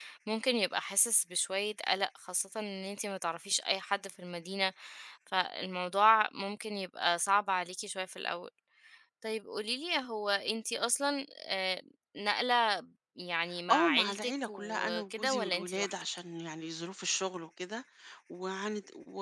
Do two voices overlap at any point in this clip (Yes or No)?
Yes